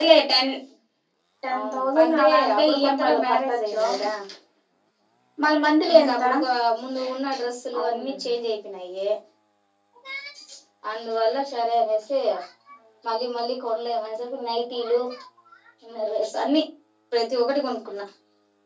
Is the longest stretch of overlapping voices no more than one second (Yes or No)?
No